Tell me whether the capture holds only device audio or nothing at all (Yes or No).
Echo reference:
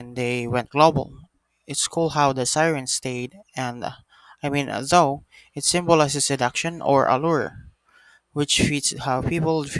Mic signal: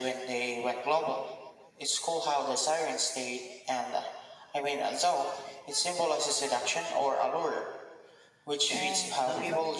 No